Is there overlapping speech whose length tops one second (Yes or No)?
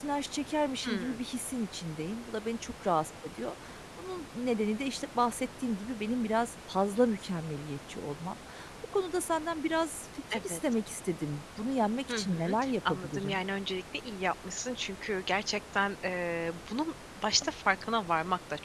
Yes